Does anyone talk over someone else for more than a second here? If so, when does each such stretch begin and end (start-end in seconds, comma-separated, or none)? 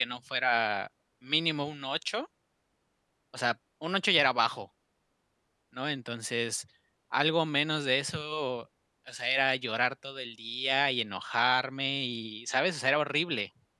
none